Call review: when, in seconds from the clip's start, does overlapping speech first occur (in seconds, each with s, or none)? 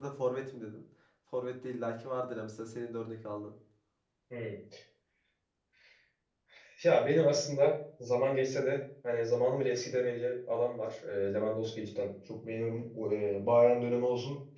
none